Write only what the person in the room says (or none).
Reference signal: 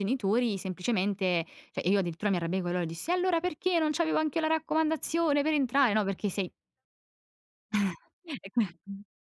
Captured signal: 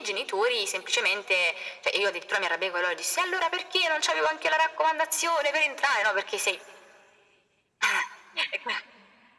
none